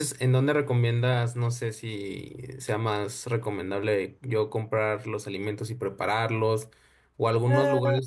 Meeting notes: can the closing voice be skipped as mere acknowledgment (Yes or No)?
Yes